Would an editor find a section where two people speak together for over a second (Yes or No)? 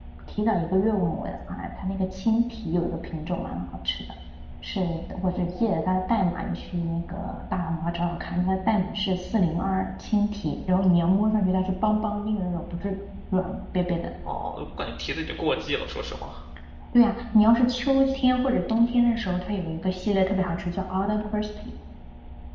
No